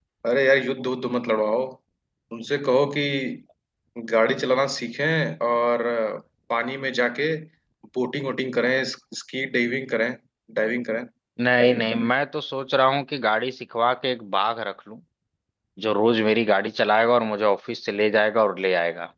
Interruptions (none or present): none